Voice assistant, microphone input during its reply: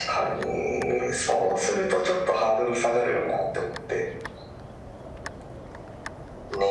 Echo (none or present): present